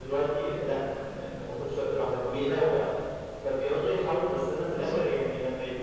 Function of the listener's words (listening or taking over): listening